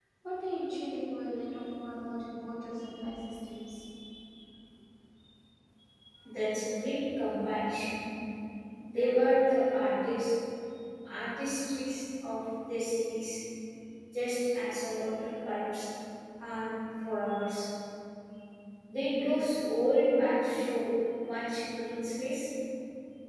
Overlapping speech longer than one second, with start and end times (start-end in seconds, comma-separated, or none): none